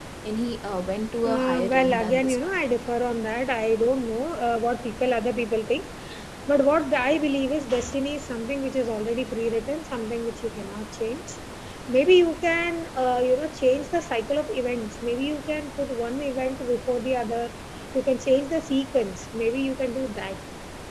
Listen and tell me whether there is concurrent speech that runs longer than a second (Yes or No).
Yes